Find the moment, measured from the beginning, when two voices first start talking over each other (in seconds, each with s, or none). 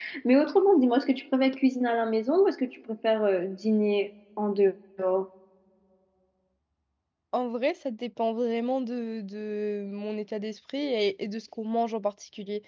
none